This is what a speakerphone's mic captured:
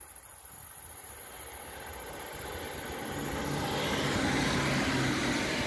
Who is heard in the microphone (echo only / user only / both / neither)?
neither